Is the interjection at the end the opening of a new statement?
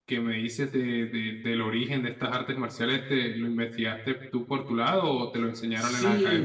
Yes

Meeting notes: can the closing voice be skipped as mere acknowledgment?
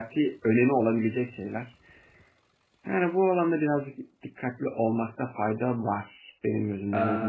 No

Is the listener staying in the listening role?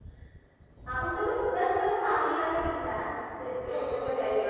Yes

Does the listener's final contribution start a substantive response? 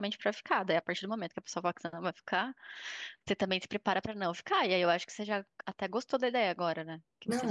Yes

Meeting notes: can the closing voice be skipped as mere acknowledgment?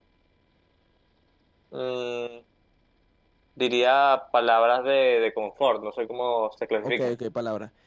No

